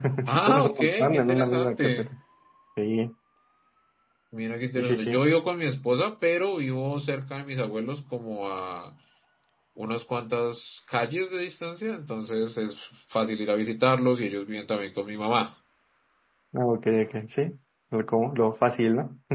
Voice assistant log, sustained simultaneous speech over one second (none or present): present